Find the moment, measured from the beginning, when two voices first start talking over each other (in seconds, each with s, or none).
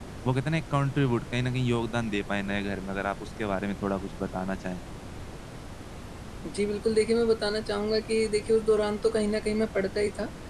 none